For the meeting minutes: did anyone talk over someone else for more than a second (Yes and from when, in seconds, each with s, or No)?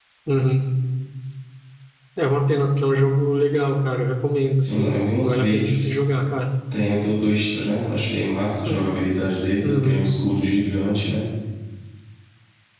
Yes, from 4.6 s